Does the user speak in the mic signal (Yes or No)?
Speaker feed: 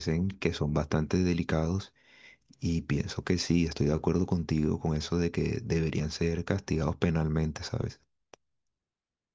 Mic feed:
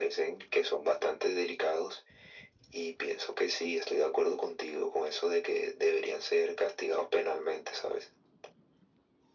No